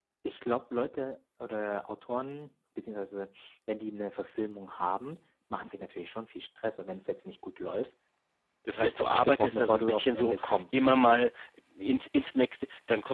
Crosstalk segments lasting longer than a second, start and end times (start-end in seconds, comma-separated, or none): 8.8-10.8